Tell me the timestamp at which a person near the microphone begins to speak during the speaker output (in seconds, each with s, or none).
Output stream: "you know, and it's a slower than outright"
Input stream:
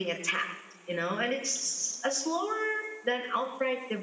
none